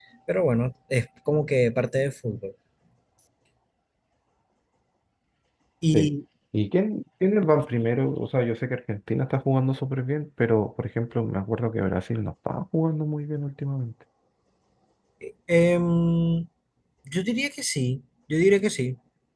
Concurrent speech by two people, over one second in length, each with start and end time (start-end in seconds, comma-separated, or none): none